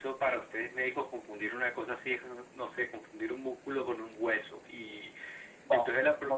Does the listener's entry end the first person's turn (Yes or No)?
Yes